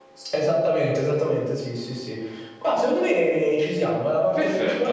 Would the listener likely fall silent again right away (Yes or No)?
No